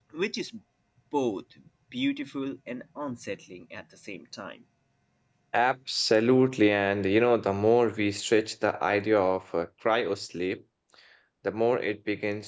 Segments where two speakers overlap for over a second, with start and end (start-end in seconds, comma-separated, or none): none